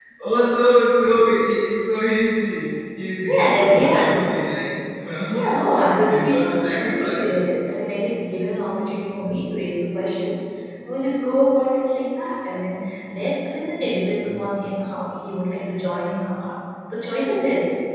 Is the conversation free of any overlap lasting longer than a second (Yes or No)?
No